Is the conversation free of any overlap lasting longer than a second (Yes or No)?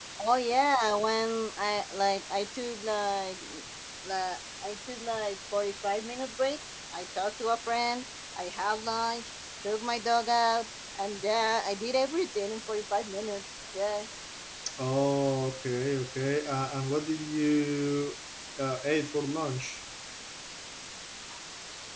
Yes